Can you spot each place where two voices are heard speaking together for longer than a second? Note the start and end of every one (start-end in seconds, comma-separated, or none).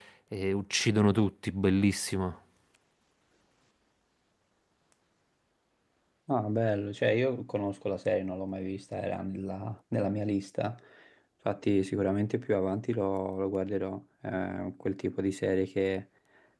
none